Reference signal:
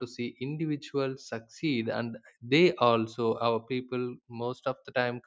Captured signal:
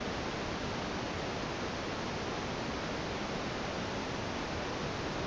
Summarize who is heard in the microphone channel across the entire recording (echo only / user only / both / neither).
neither